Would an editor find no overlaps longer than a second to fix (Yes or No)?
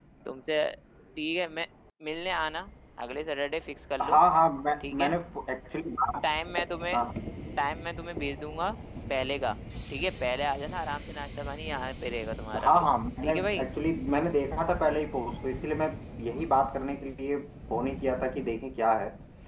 Yes